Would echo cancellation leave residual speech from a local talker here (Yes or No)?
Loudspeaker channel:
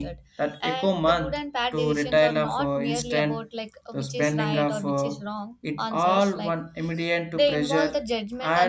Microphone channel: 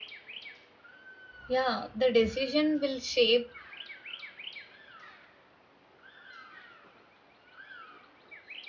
Yes